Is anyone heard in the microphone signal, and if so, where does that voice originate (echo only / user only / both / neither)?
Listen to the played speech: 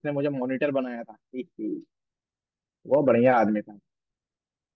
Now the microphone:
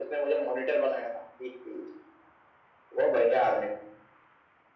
echo only